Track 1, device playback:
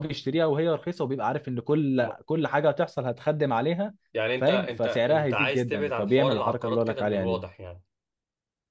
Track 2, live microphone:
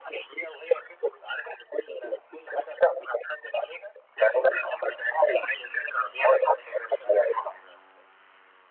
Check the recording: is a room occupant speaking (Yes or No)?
No